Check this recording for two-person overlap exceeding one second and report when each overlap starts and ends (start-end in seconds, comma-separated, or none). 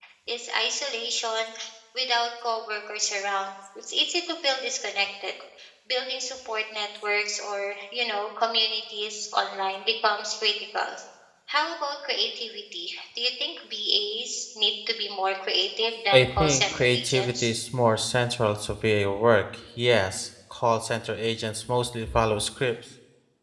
16.1-17.5